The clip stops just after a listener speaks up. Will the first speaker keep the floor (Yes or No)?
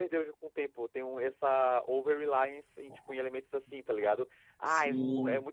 Yes